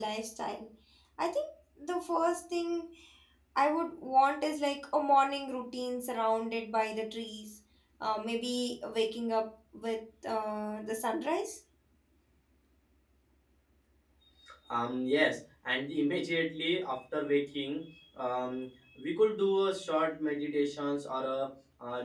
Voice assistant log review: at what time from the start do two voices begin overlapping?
none

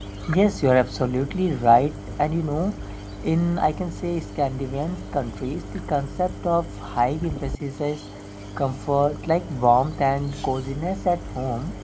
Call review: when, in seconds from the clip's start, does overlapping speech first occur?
none

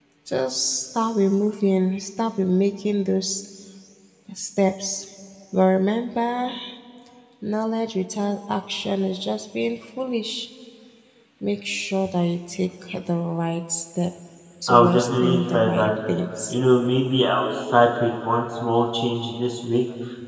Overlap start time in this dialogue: 15 s

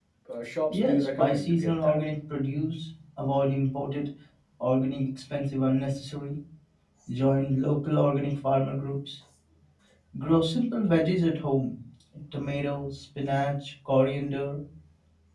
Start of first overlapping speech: 1 s

